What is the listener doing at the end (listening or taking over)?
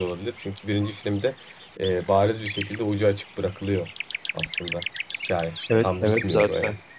taking over